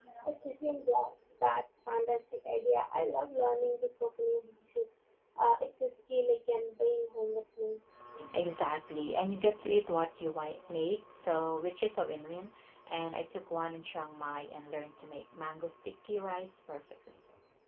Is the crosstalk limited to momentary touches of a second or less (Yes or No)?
Yes